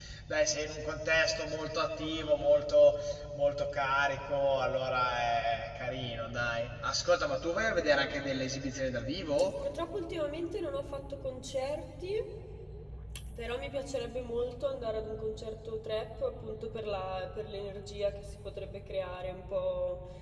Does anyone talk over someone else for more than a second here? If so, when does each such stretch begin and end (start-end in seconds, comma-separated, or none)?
none